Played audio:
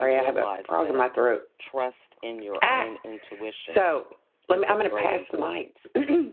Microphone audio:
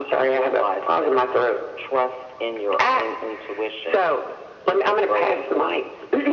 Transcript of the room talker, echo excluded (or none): none